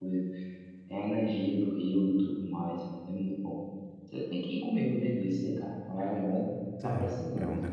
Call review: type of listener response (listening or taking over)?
taking over